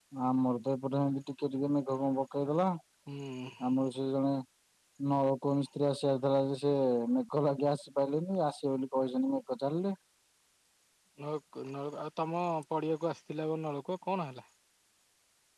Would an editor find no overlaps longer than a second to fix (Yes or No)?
Yes